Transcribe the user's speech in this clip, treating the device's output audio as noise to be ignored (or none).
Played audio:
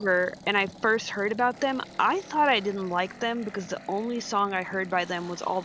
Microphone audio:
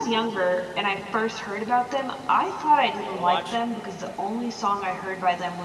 I want to watch